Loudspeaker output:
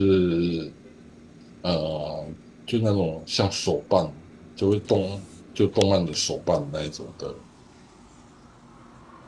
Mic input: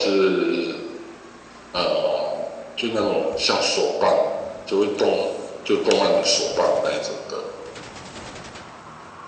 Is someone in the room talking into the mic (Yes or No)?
No